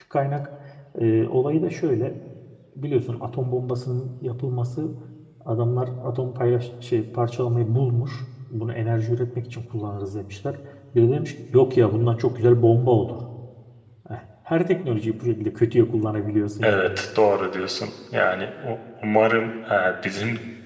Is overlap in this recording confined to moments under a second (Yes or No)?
Yes